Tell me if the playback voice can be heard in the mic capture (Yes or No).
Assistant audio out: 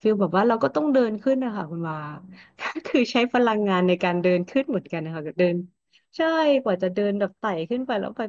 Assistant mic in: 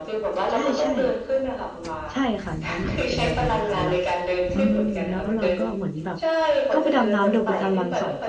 Yes